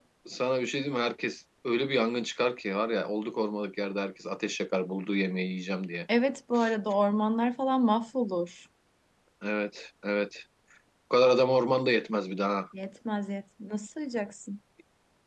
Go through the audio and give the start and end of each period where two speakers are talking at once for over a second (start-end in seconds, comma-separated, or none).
none